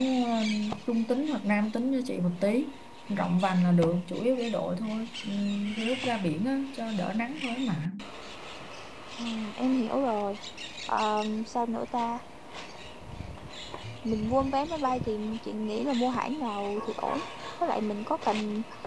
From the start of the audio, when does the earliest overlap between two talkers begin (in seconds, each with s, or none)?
none